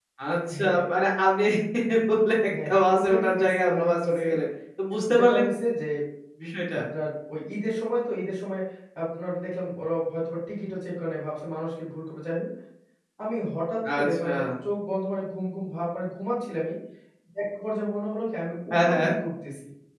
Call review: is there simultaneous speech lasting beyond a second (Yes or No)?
Yes